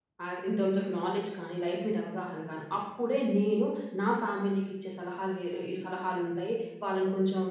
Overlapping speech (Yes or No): No